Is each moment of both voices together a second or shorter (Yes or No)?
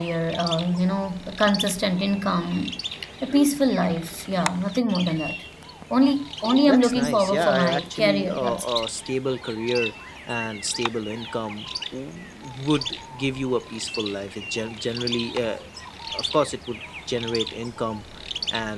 No